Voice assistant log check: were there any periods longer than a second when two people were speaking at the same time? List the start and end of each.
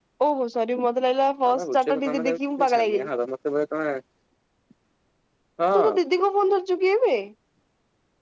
1.5-3.1

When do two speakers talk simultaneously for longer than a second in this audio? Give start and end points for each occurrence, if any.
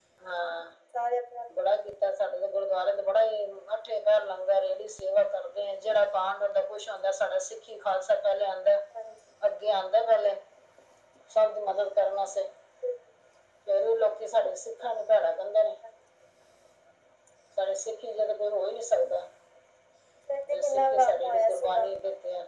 20.5-21.9

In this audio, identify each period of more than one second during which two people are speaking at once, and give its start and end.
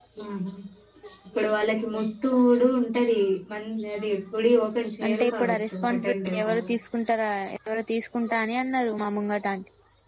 5.0-6.7

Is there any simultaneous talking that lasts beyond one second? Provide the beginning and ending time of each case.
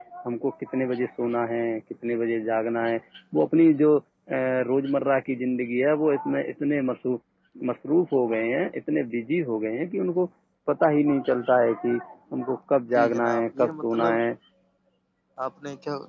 12.9-14.2

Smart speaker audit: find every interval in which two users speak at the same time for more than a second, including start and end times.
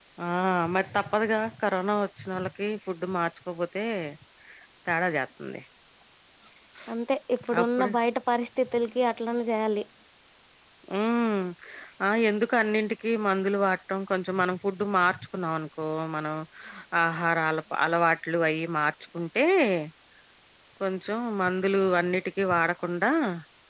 none

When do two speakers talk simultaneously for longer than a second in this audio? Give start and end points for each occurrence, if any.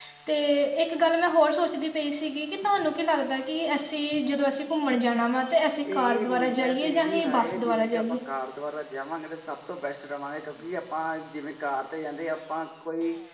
5.9-8.0

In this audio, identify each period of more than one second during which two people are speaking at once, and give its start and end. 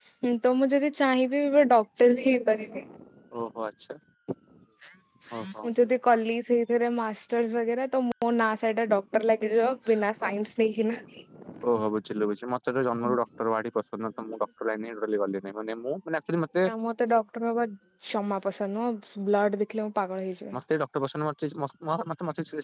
none

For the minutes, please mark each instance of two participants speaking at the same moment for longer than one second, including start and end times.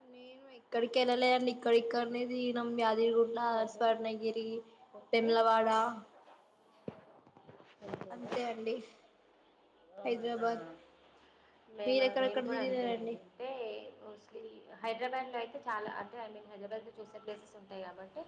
11.9-13.1

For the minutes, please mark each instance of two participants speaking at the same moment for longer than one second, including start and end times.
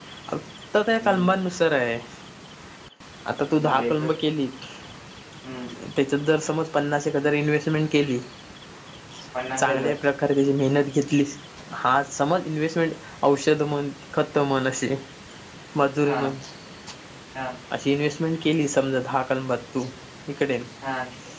none

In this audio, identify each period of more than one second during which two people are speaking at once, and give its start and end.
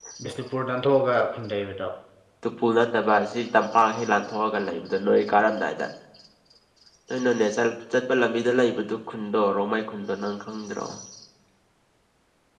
none

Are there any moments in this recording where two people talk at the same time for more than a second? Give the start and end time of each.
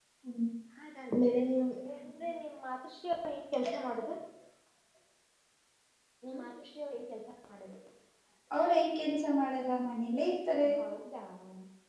none

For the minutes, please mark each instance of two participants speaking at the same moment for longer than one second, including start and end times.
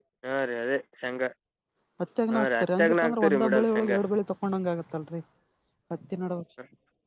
2.3-4.0

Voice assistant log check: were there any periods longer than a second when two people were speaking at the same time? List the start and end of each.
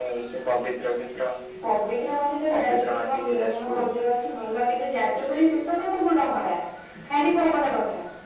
2.5-3.9

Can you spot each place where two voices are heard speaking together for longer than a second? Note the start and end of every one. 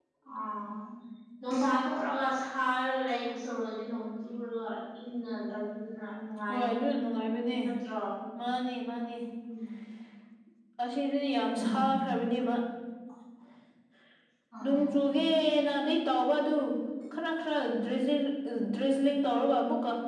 none

